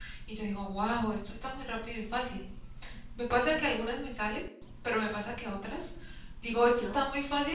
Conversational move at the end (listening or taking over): listening